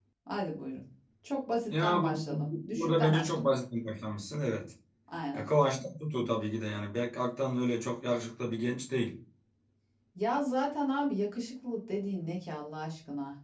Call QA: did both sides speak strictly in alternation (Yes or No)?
No